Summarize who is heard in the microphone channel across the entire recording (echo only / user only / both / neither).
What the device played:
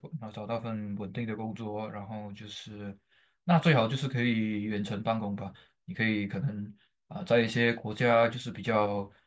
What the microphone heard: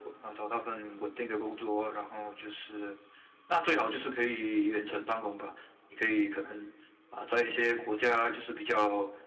echo only